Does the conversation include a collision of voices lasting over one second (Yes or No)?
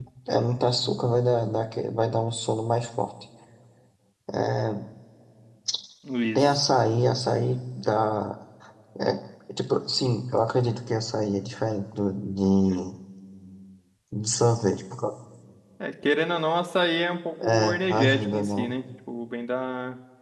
Yes